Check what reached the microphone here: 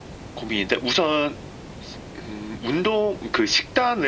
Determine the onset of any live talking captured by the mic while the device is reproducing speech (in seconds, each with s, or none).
none